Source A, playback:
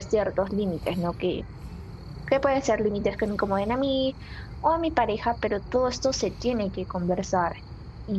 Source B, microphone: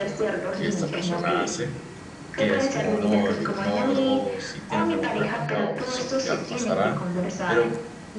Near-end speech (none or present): present